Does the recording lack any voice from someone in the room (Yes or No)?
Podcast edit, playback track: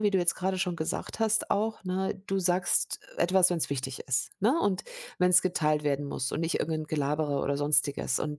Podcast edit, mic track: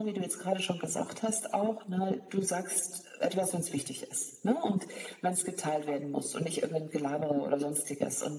Yes